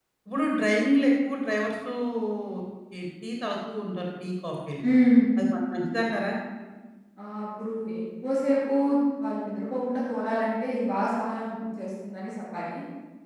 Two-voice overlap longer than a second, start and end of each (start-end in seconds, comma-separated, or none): none